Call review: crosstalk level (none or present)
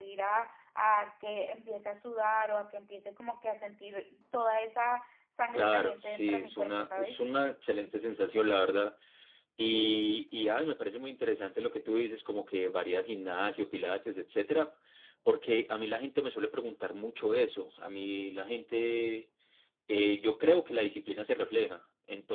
present